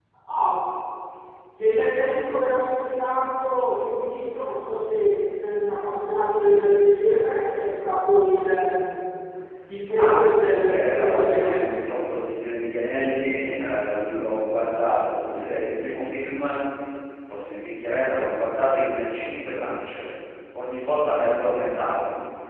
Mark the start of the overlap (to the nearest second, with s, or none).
10 s